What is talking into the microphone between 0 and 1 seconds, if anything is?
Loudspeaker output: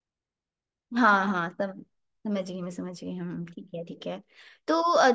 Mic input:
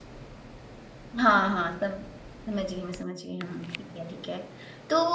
neither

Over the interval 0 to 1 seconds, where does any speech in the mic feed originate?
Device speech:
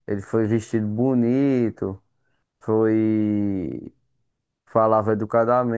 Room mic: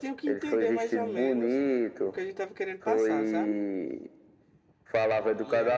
both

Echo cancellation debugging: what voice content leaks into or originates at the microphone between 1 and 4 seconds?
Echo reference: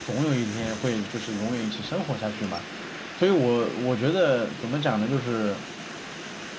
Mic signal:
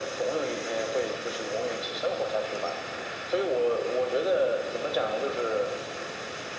echo only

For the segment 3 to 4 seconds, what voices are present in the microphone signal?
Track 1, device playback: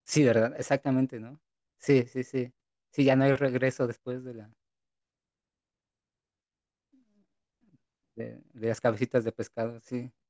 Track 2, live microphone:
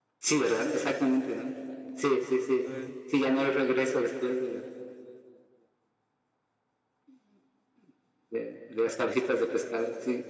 both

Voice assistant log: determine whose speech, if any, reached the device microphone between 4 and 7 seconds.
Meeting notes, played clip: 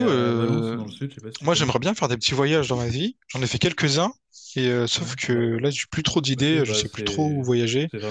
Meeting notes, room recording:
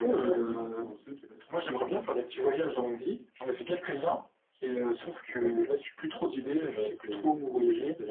echo only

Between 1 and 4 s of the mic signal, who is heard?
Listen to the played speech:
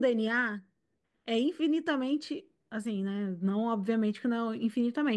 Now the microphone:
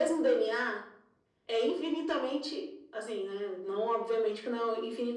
echo only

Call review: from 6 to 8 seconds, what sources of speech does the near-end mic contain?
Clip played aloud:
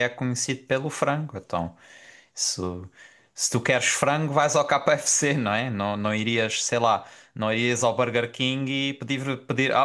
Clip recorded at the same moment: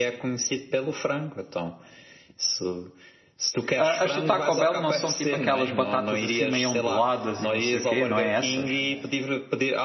both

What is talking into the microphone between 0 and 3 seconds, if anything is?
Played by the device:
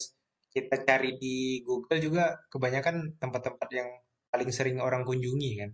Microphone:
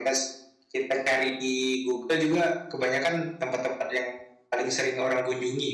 echo only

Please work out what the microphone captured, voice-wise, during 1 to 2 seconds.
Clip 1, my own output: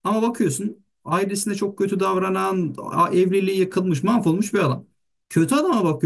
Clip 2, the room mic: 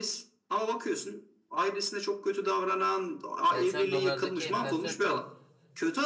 echo only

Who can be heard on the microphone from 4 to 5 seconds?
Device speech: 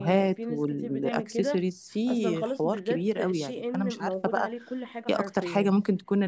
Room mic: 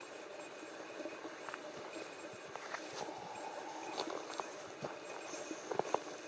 neither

